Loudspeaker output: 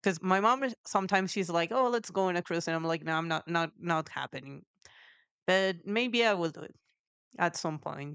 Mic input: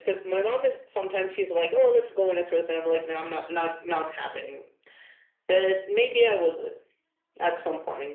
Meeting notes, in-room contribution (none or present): none